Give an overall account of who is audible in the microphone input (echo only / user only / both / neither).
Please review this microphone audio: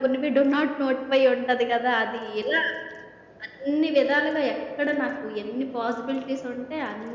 echo only